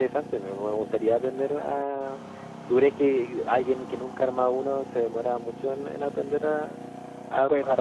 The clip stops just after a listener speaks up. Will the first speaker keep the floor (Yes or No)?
No